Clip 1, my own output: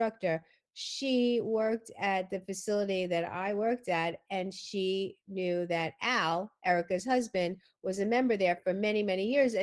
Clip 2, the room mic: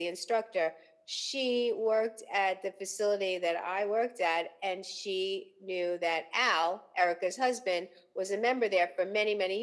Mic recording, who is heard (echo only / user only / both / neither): echo only